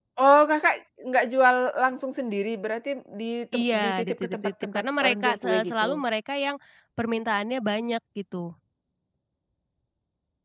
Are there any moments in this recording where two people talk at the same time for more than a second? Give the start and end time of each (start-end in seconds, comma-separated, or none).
3.6-5.9